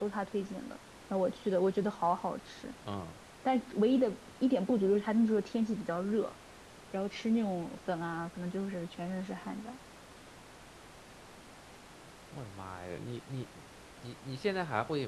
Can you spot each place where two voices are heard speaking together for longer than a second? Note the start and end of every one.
none

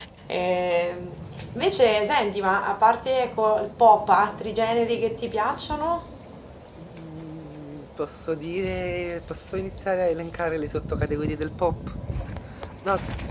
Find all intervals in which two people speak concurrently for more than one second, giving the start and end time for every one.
none

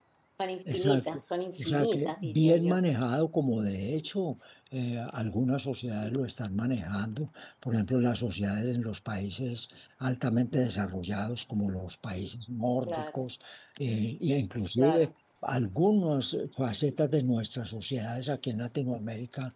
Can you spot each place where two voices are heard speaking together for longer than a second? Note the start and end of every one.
1.6-2.8

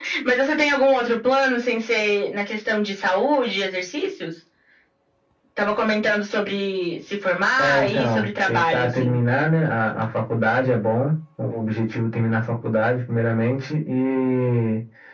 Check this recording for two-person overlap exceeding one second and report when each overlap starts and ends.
7.6-9.1

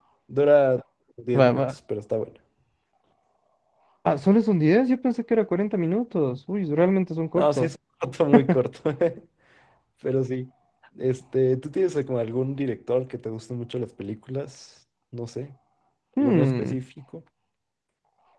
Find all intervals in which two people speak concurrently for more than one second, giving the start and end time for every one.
none

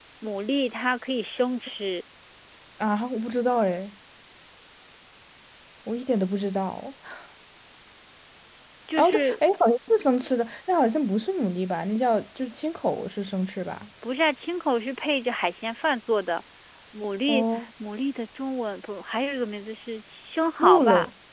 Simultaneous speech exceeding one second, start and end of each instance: none

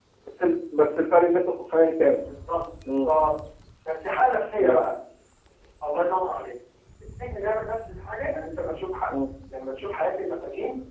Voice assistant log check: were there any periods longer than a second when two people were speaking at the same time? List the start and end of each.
none

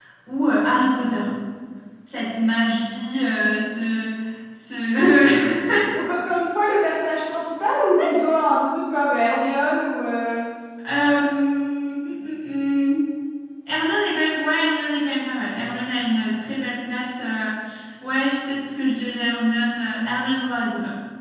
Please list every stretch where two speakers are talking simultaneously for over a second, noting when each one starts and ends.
none

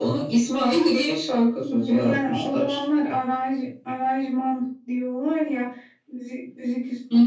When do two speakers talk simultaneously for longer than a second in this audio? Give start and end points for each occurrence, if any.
1.6-2.8

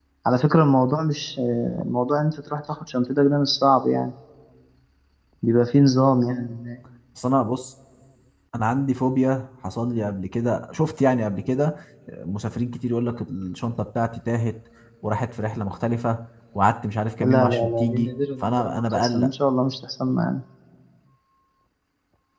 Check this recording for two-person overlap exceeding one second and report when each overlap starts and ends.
17.2-19.3

